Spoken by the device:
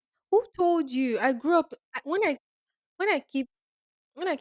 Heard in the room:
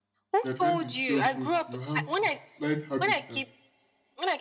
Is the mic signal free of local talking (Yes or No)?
No